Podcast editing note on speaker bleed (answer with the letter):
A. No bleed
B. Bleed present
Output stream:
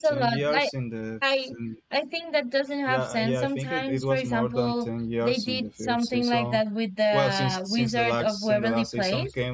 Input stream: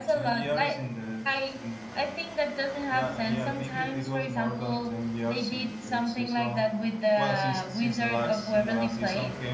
B